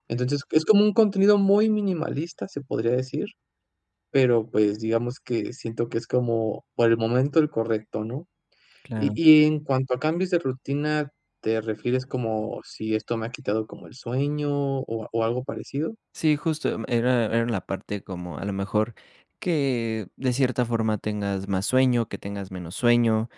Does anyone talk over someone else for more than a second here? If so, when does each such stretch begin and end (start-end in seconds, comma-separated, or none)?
none